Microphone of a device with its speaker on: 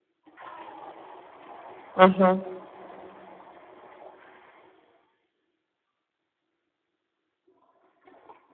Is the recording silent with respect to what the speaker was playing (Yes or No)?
Yes